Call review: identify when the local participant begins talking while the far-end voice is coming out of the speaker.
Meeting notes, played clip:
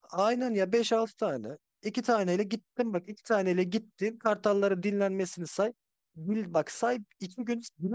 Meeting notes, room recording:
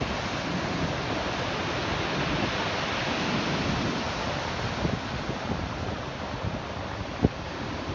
none

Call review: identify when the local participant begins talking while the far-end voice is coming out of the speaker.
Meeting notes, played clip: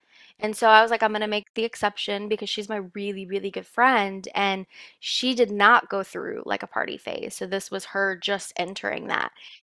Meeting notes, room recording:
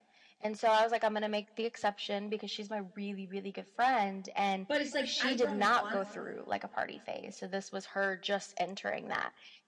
4.7 s

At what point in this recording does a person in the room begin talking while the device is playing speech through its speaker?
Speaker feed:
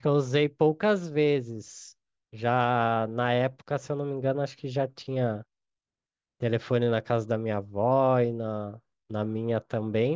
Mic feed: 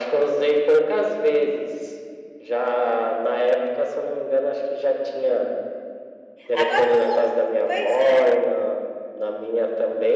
6.5 s

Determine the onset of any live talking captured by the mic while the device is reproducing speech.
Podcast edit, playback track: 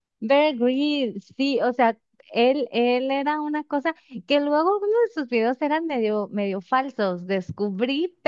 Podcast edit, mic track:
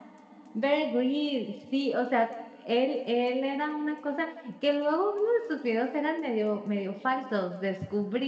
none

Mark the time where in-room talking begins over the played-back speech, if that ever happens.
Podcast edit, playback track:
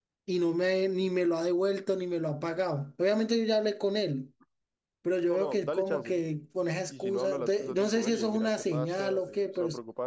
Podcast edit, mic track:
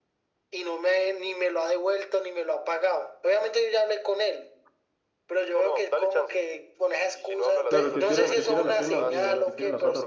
7.7 s

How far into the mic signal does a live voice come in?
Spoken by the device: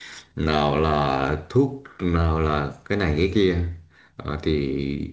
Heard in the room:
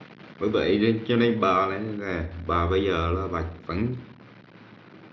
0.4 s

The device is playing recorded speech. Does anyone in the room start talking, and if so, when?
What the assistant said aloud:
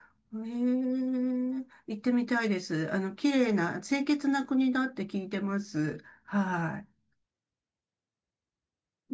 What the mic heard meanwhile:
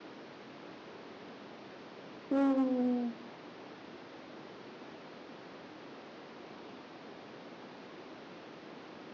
2.3 s

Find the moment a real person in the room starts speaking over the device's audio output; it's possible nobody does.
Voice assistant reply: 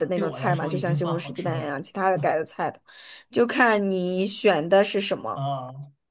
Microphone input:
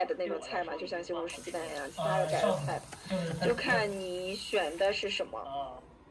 2.0 s

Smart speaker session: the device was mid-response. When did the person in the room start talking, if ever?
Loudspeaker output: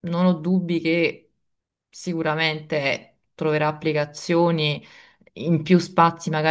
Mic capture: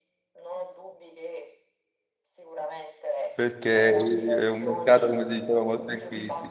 3.3 s

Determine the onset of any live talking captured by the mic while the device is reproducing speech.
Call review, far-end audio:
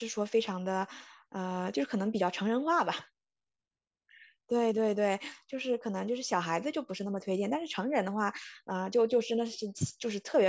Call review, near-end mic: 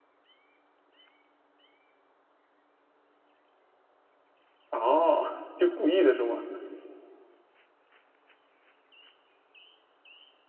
4.7 s

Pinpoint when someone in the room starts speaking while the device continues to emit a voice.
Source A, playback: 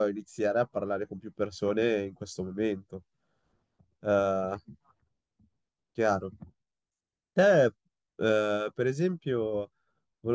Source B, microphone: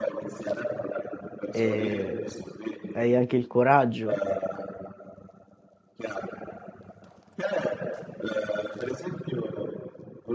1.5 s

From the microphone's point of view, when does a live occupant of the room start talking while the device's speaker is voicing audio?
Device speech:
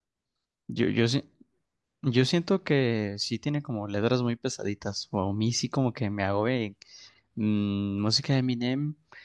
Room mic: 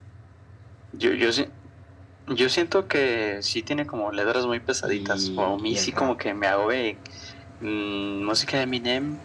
4.8 s

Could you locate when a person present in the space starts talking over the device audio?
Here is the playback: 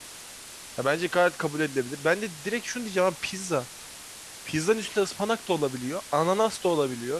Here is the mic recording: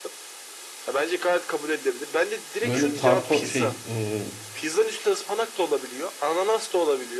2.6 s

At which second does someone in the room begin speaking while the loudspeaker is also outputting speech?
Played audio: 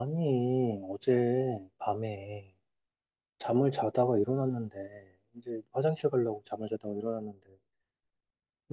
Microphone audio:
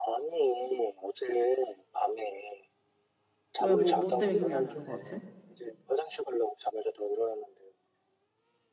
3.6 s

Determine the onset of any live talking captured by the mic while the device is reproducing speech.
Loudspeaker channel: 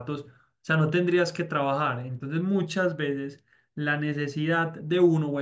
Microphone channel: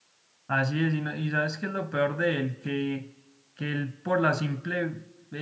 0.5 s

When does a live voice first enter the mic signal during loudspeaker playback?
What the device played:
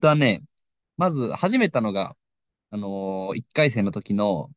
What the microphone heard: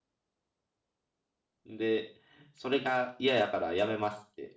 1.6 s

